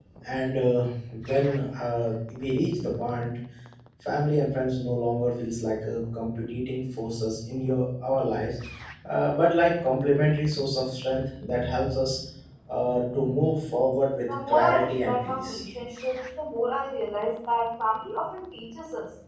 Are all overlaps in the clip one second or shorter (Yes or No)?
No